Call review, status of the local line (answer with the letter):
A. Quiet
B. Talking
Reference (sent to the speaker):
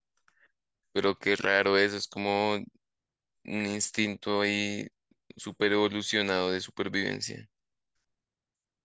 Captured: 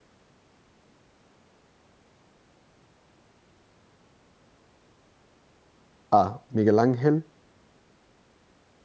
B